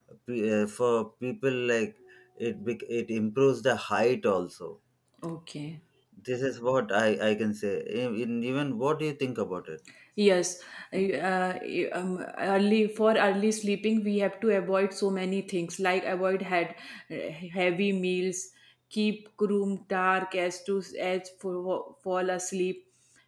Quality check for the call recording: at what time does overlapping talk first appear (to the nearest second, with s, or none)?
none